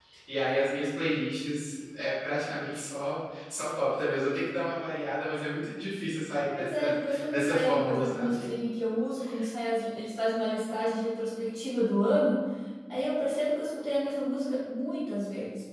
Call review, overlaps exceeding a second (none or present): present